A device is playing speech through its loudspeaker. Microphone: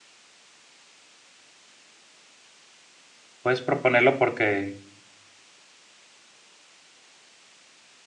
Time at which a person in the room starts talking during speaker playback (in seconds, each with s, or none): 3.4 s